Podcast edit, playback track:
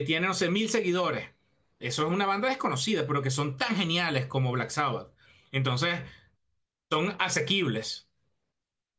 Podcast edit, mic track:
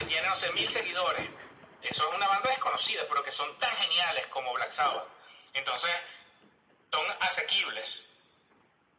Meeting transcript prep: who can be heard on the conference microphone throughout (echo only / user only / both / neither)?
echo only